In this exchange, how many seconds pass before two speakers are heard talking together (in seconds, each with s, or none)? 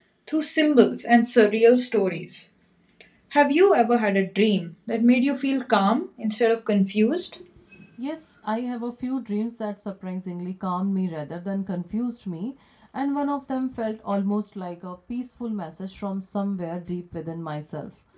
none